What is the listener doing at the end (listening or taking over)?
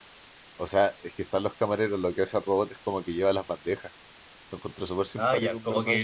taking over